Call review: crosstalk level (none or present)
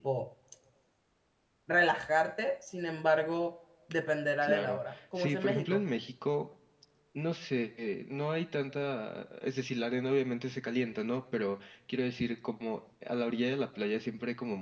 present